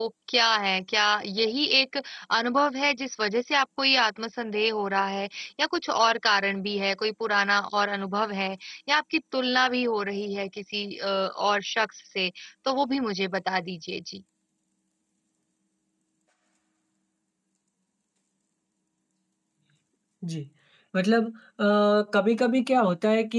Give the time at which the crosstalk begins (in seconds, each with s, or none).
none